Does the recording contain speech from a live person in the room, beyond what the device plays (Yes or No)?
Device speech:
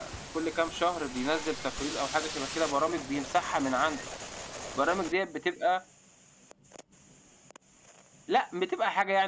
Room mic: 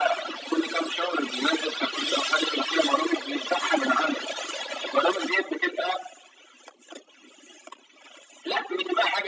No